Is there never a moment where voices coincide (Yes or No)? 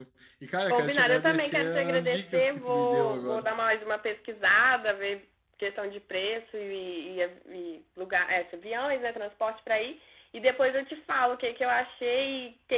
No